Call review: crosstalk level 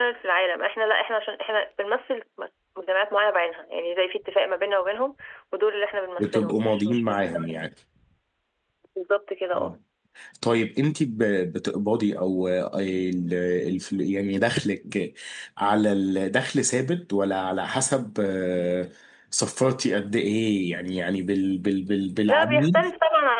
present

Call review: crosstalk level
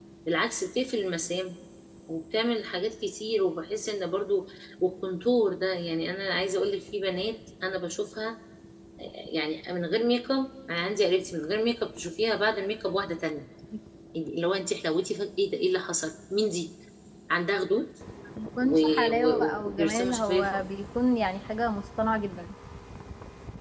present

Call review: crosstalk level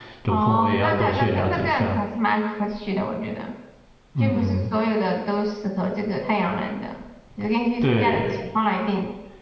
present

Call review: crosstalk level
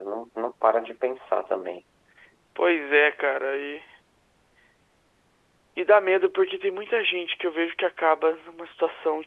none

